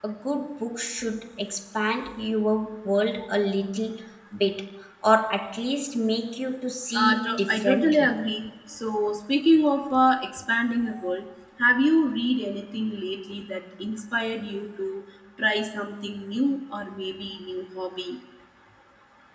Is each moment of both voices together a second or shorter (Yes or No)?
No